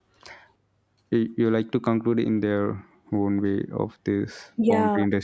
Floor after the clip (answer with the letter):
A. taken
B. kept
A